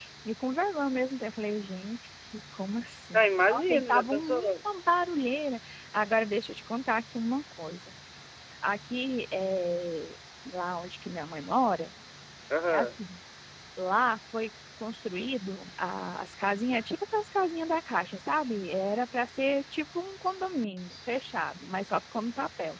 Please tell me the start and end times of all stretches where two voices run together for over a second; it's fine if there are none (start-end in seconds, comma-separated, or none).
3.1-4.5